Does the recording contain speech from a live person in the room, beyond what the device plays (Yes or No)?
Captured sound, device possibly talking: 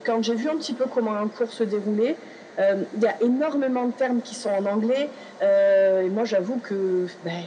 No